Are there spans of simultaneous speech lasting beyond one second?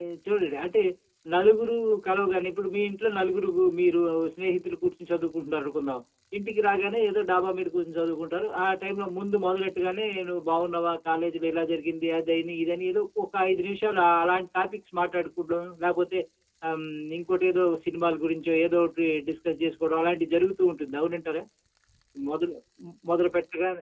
No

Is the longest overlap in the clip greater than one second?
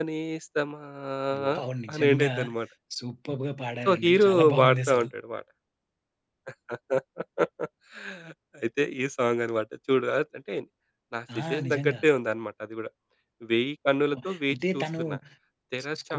Yes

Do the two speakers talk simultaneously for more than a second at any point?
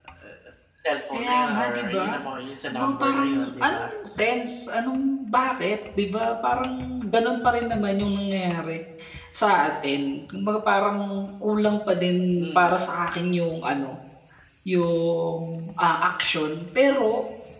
Yes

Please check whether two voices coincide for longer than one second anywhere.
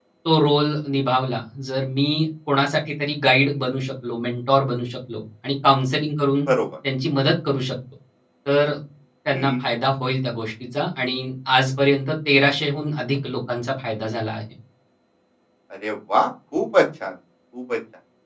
No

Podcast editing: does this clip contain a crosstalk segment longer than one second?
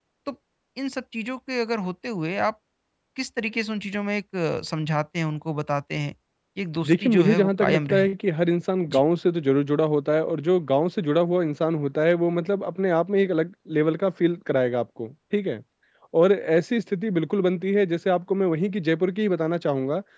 Yes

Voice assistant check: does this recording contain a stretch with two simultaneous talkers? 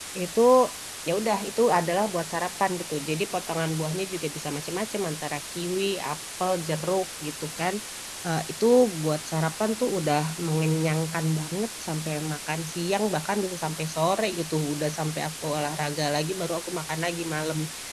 No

